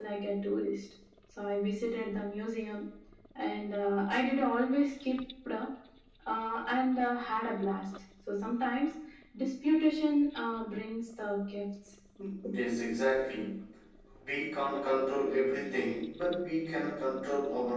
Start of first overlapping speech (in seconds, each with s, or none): none